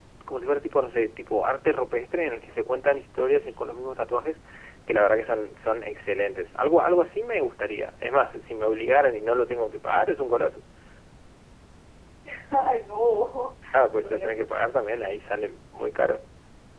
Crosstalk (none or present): present